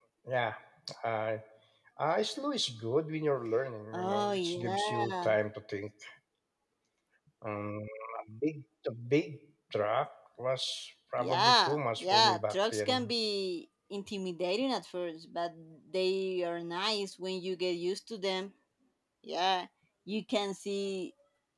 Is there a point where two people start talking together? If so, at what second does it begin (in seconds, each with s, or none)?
3.9 s